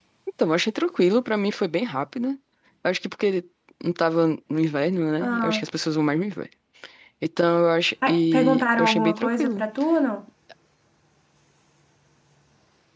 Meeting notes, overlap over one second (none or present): present